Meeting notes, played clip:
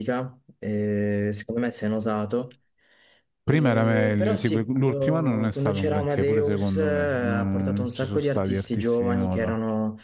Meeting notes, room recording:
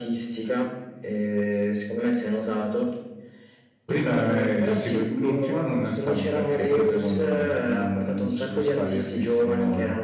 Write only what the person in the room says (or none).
none